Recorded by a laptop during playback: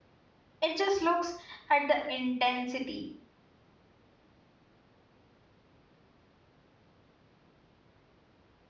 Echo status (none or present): none